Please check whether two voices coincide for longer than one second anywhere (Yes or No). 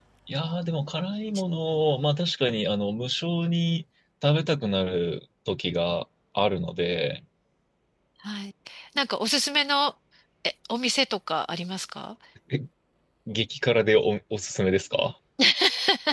No